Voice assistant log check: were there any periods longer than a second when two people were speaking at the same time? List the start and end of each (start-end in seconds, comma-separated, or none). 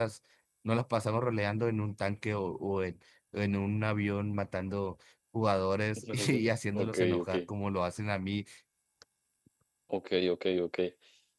6.1-7.3